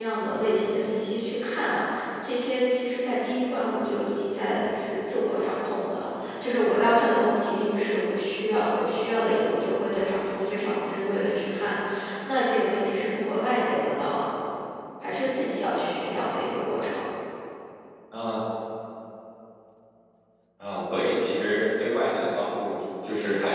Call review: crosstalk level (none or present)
none